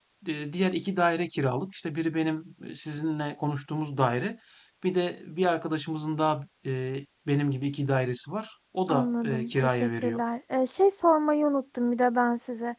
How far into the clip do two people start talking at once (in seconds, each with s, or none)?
8.9 s